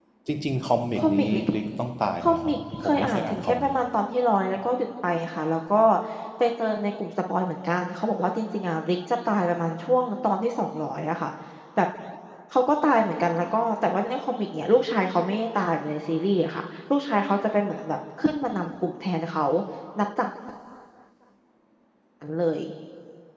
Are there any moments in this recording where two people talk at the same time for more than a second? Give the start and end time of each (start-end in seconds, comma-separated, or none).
2.2-3.7